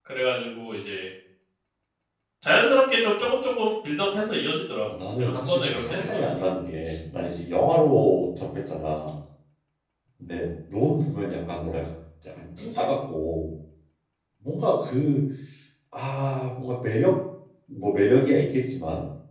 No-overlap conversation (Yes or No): No